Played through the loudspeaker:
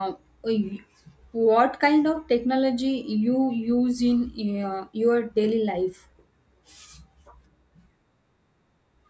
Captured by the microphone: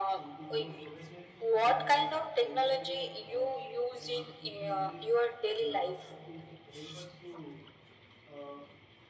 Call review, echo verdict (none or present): present